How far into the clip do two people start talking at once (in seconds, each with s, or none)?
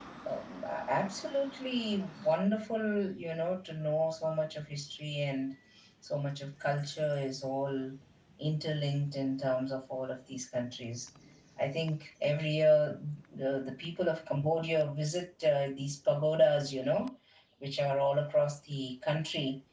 none